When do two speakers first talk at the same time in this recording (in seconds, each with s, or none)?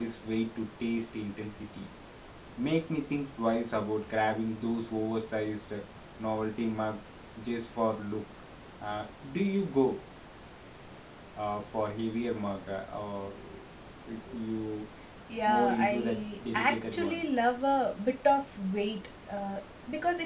15.5 s